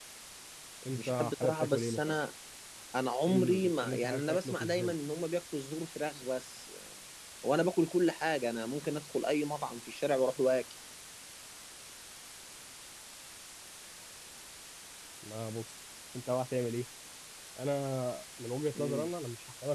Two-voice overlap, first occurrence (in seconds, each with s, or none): 0.9 s